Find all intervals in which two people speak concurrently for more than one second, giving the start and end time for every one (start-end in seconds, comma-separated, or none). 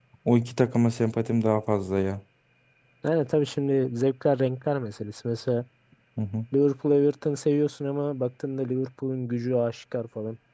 none